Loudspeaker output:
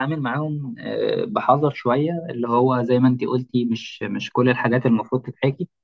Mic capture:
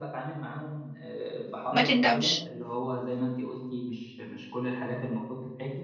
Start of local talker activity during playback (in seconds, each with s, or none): 1.7 s